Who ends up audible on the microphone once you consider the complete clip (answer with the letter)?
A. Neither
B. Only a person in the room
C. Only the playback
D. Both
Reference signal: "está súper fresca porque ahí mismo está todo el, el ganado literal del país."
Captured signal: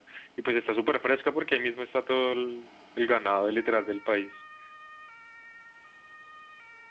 C